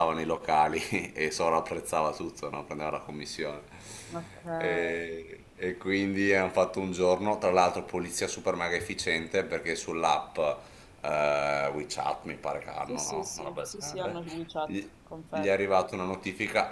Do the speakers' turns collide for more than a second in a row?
Yes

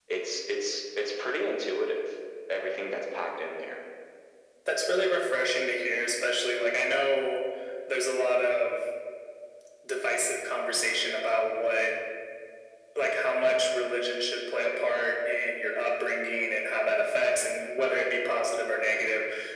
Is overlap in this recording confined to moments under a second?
Yes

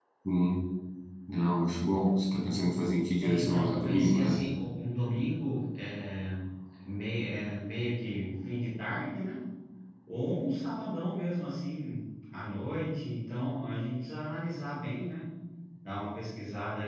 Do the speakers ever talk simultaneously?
Yes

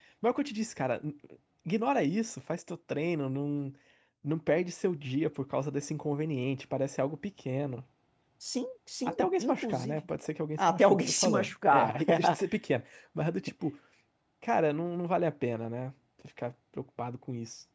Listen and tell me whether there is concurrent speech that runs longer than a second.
Yes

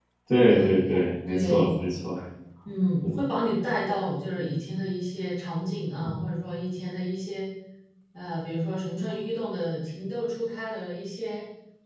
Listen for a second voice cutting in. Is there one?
Yes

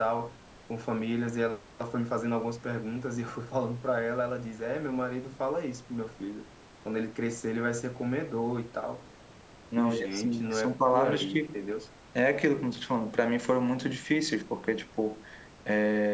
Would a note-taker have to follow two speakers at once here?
Yes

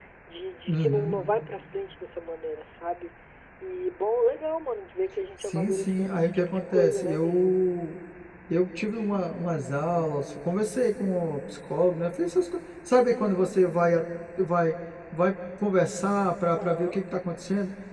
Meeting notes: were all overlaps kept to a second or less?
No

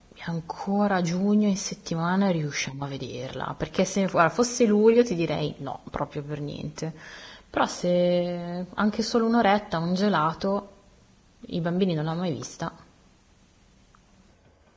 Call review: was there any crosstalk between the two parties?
No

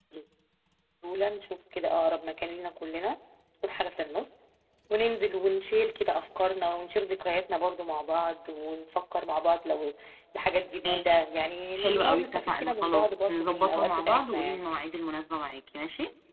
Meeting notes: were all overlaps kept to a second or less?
No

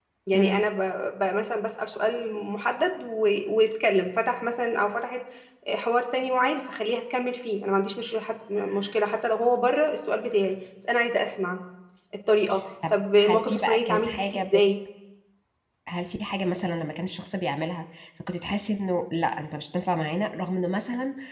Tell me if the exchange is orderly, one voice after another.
No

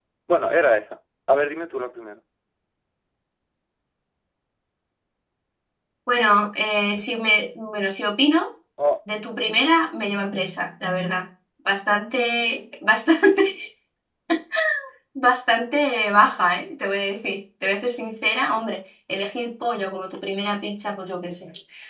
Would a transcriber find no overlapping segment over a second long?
Yes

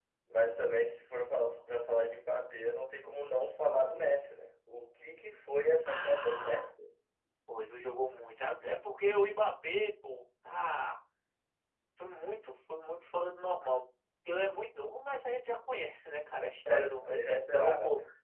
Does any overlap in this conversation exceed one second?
Yes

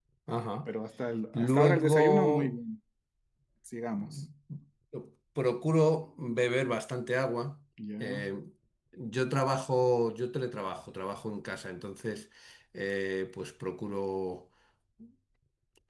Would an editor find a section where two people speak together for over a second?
Yes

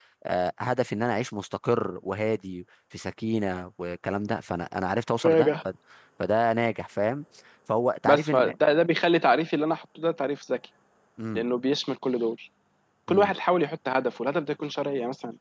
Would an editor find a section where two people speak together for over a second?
No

